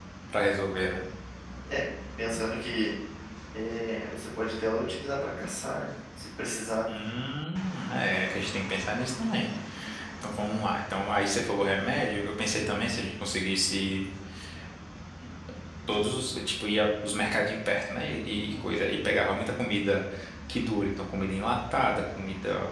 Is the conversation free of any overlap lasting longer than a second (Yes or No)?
Yes